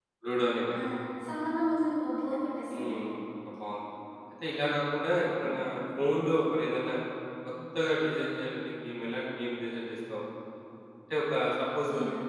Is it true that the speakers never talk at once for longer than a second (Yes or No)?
Yes